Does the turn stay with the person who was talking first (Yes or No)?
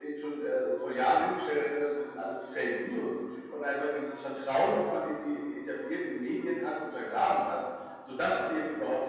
Yes